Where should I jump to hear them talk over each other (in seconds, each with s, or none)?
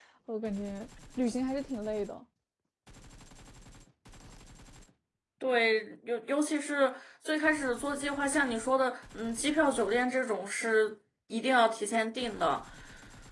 none